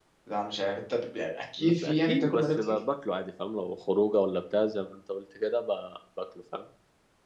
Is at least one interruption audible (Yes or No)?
Yes